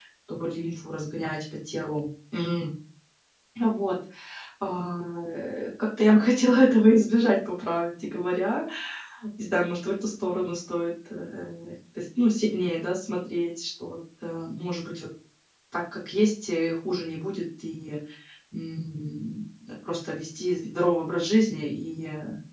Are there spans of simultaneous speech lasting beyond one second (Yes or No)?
No